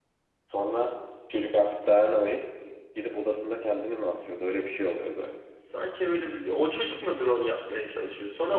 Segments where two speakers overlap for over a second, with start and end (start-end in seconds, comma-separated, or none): none